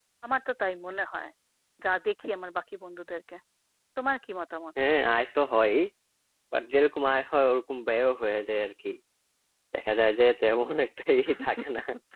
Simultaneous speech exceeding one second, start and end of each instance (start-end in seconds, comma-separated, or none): none